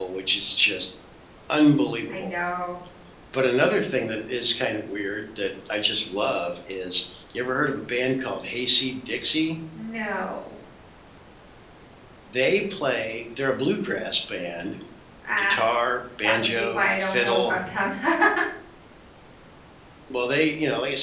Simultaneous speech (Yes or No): Yes